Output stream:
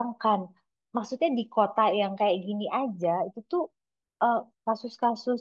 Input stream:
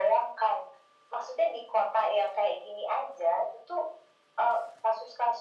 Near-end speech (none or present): none